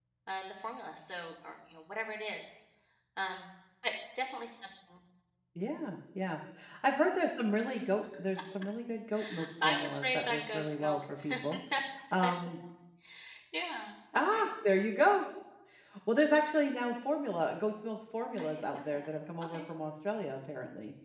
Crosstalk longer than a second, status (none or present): present